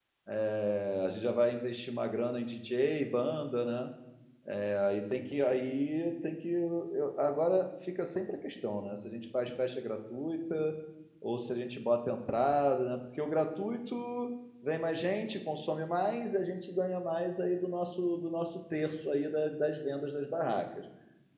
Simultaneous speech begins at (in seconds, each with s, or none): none